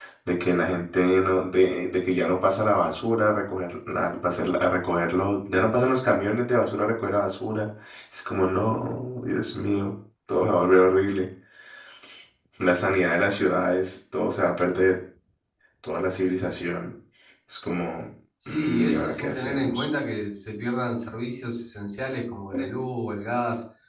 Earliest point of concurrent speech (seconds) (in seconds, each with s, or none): 18.5 s